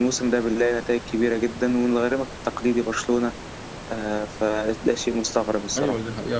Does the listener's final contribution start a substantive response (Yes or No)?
Yes